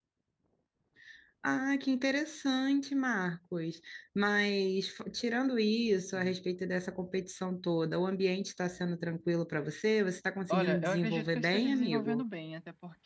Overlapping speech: Yes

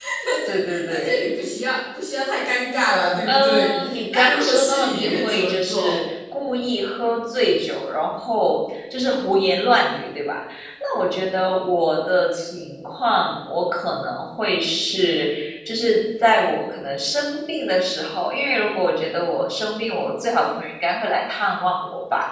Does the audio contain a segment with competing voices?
Yes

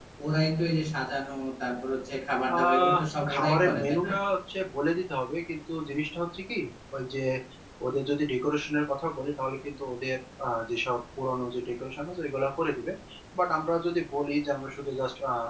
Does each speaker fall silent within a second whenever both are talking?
No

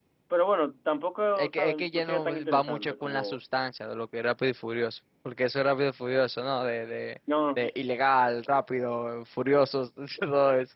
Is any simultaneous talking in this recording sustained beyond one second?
Yes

